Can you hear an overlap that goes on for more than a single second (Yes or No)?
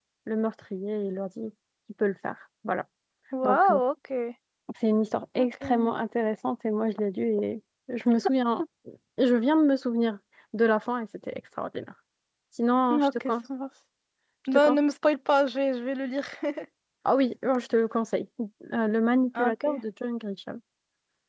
No